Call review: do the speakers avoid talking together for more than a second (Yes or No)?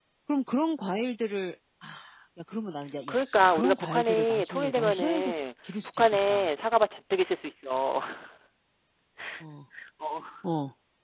No